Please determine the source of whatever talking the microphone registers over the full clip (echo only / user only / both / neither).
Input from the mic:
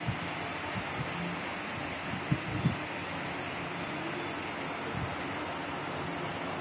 neither